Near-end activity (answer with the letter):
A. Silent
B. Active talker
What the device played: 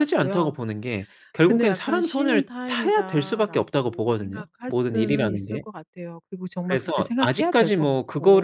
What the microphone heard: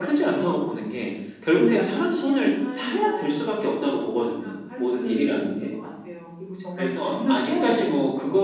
A